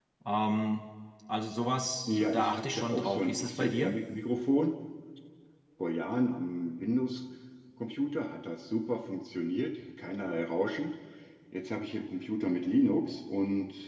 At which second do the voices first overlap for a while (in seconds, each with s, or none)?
2.1 s